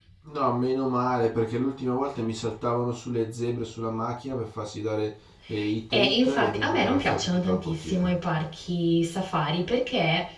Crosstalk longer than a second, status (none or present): present